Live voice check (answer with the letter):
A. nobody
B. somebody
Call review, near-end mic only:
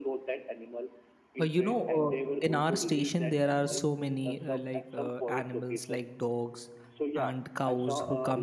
B